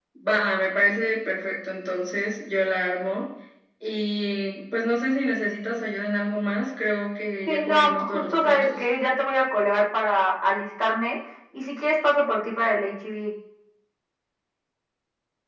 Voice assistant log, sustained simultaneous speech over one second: present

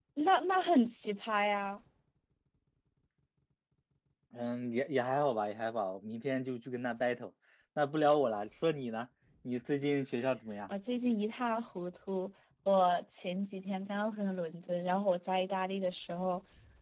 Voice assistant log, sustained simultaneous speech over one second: none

